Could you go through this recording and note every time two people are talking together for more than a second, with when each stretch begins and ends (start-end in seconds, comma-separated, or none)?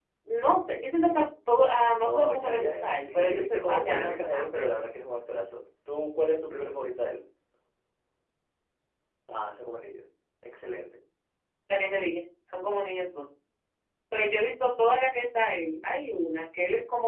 2.0-4.7